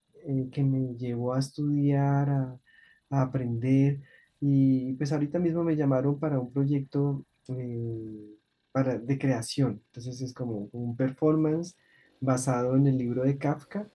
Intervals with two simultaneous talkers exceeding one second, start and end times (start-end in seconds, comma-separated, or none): none